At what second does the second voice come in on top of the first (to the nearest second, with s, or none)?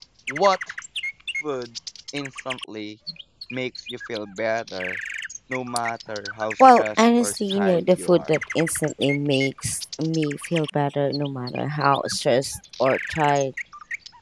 7 s